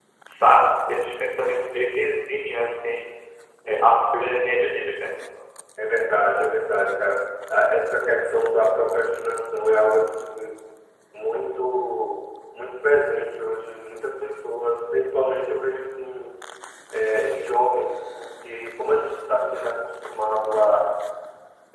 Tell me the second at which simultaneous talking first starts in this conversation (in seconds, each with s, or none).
none